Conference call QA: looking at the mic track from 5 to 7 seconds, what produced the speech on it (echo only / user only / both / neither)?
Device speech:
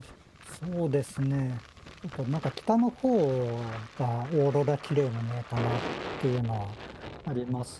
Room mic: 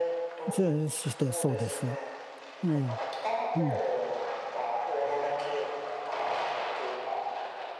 echo only